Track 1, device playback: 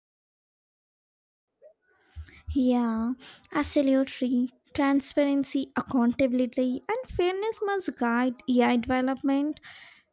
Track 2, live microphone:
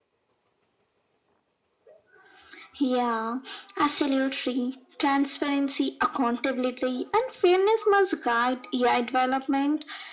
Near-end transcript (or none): none